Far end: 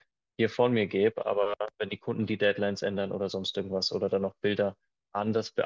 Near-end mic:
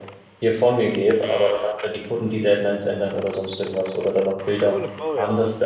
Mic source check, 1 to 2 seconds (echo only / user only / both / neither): echo only